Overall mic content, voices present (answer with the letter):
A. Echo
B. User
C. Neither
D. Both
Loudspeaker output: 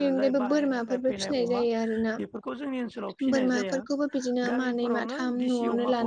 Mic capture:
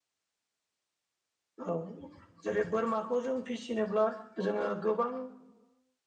B